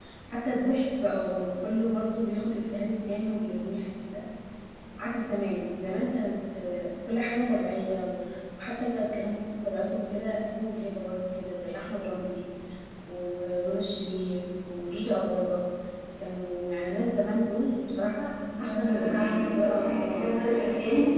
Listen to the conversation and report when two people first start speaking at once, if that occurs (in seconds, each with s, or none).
18.1 s